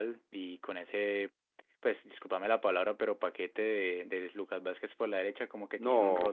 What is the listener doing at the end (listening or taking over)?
taking over